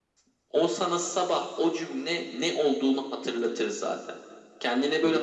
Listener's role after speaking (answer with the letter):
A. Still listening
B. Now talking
A